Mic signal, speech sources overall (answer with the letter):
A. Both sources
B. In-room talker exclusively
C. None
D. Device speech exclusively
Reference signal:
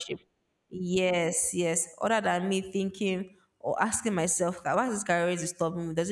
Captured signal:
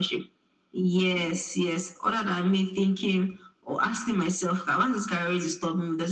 D